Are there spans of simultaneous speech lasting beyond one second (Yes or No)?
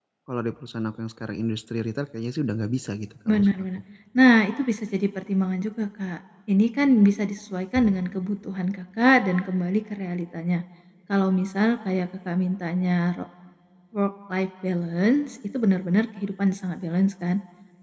No